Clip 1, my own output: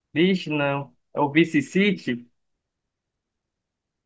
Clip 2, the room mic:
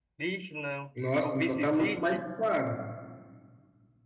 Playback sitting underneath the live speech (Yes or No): Yes